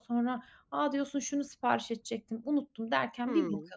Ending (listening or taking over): taking over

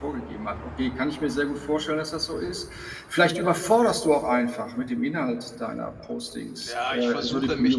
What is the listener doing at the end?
taking over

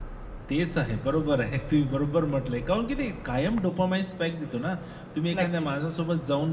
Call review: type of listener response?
listening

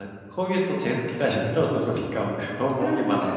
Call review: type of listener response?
taking over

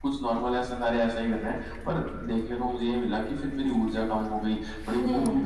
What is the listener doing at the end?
listening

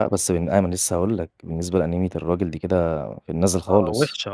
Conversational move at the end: taking over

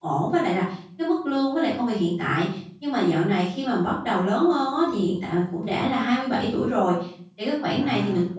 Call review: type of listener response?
listening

